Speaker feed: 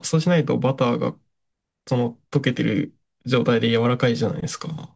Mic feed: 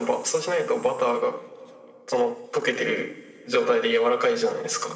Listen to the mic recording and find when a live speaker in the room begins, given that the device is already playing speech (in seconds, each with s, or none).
none